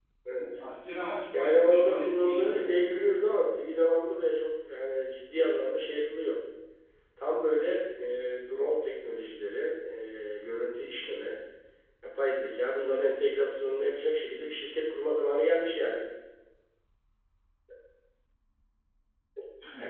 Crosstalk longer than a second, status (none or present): present